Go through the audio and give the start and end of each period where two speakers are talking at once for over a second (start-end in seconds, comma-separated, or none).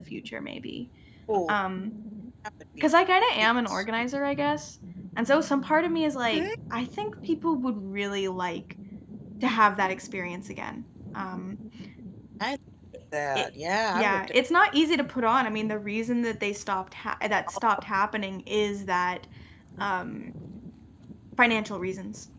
none